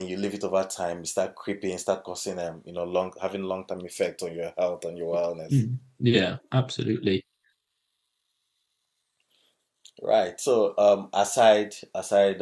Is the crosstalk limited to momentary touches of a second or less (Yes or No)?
Yes